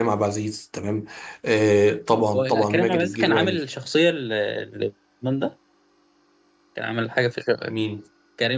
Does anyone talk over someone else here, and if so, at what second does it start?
2.3 s

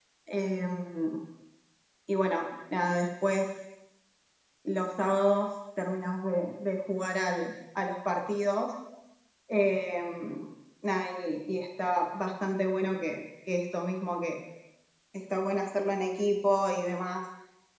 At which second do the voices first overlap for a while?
none

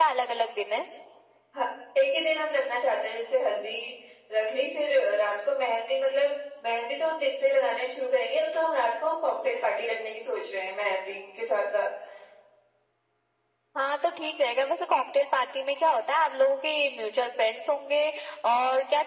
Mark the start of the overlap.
none

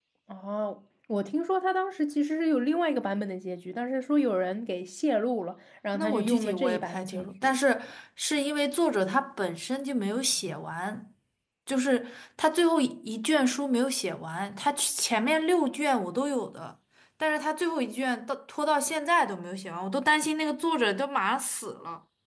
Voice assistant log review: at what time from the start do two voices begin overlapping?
5.9 s

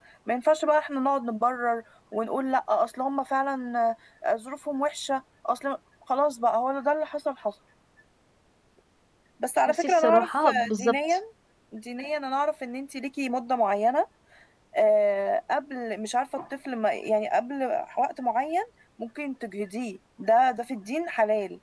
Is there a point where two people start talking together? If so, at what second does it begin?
9.7 s

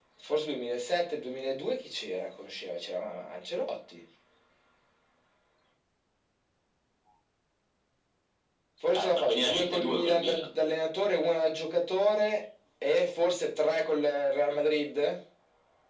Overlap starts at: 8.9 s

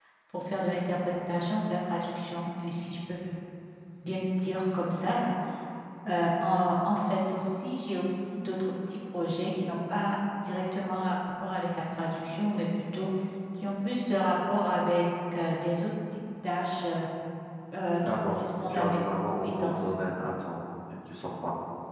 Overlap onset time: 18.2 s

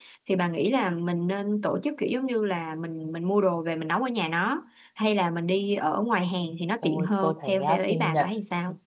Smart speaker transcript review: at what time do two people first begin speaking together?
6.8 s

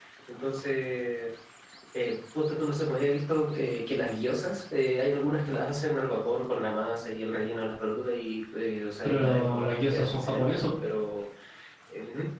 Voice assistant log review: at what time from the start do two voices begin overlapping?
9.0 s

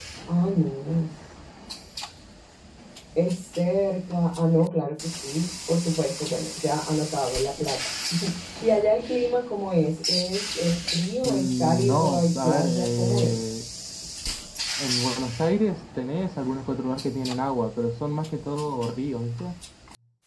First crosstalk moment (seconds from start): 11.2 s

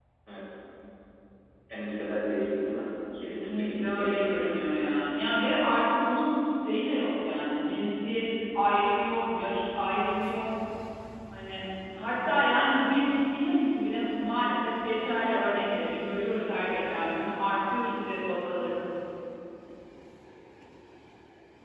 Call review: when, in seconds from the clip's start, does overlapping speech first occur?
3.1 s

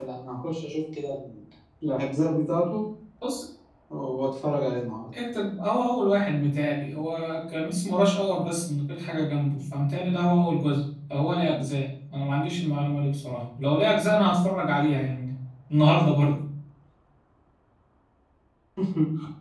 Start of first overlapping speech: none

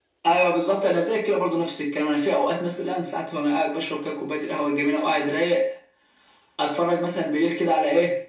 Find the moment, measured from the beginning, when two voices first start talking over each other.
none

